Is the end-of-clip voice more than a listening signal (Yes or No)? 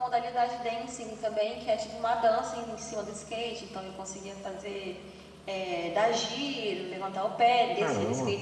No